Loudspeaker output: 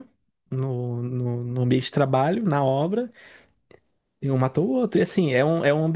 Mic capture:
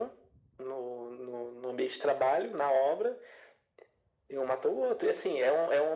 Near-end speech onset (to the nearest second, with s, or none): none